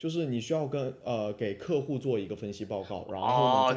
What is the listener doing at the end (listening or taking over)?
taking over